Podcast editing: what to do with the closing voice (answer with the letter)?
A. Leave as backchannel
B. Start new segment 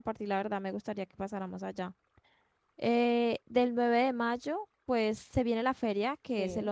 A